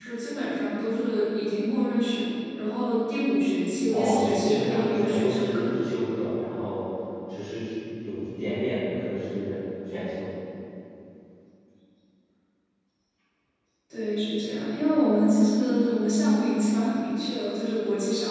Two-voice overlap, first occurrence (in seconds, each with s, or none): 3.9 s